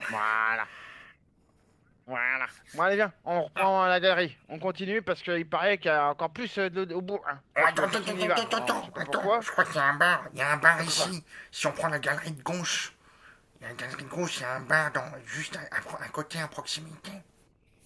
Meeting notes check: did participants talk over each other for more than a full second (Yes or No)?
Yes